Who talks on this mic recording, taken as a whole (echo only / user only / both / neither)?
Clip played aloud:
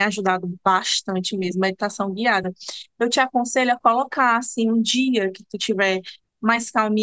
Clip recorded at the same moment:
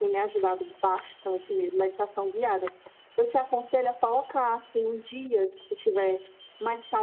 echo only